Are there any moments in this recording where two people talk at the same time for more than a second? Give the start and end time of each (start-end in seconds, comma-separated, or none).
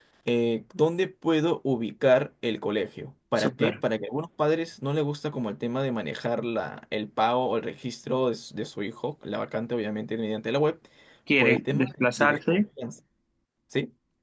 11.4-12.6